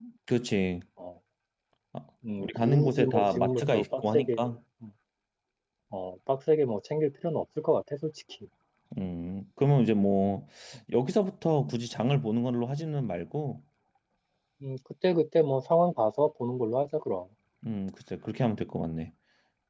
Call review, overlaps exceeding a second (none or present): present